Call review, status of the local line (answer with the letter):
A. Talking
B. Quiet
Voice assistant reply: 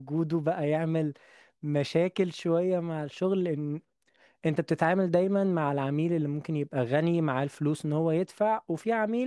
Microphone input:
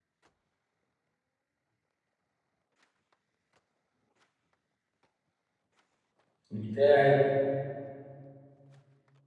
A